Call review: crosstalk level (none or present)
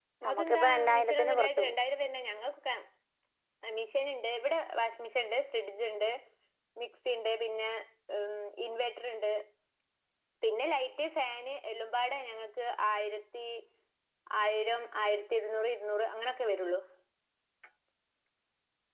present